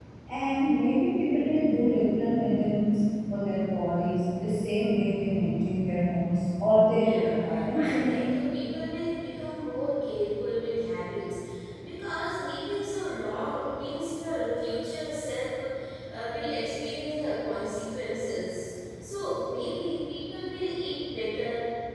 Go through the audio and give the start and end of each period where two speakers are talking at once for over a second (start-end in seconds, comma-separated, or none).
7.0-8.3